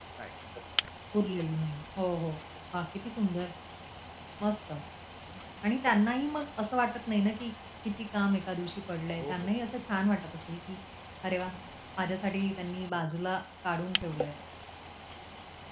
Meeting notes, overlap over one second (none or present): none